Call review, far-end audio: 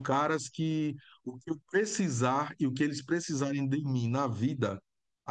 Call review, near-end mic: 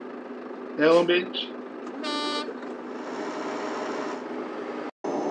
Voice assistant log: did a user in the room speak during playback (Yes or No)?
Yes